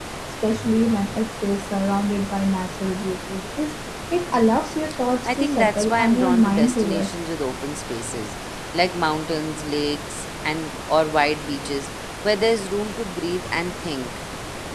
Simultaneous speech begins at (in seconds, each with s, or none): 5.2 s